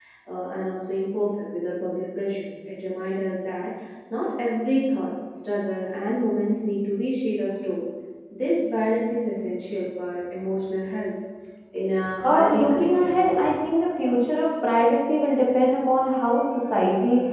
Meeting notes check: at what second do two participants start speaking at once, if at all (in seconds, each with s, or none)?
12.2 s